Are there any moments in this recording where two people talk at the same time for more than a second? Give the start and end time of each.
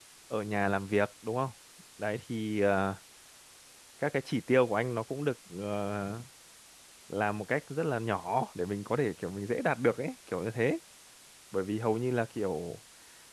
none

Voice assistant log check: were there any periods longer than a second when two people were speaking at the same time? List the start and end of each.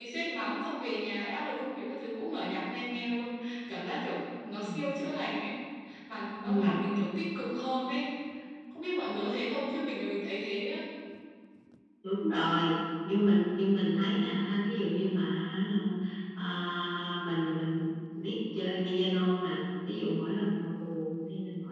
none

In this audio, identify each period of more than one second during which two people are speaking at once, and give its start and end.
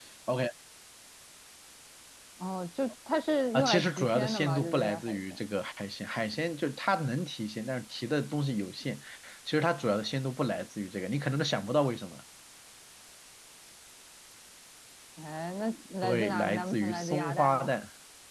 3.5-5.5, 16.0-17.8

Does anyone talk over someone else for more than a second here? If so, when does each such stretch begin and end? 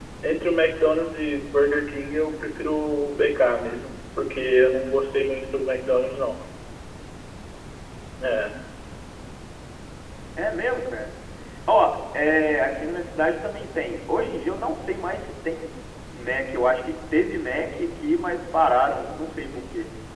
none

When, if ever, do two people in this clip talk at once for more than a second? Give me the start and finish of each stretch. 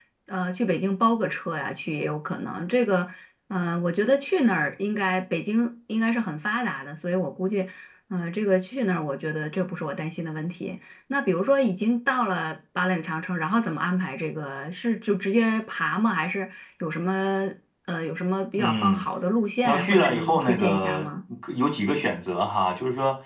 19.6-21.0

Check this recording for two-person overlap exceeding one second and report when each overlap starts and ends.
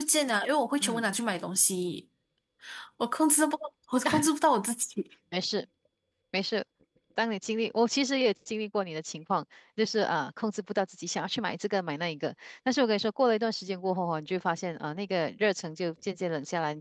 none

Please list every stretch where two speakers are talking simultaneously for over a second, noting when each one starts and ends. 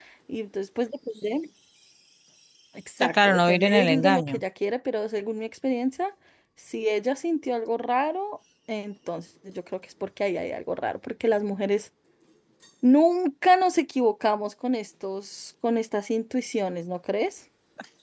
3.0-4.4

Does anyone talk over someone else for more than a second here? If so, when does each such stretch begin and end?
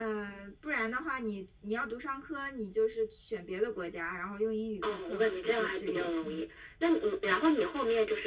4.8-6.4

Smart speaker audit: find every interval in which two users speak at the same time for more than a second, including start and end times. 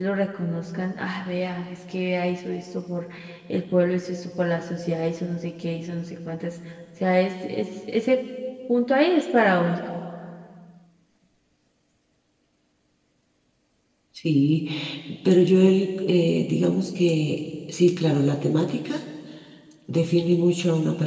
none

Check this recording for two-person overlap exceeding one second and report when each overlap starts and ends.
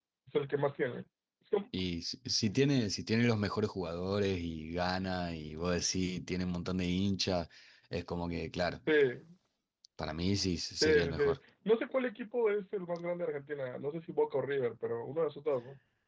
none

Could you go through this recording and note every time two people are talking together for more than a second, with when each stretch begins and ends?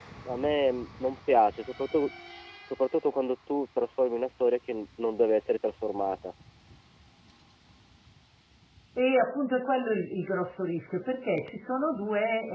none

